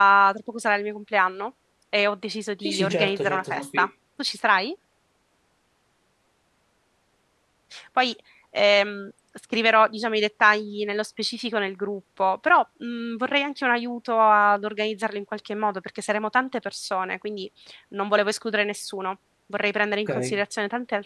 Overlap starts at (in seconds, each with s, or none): 2.6 s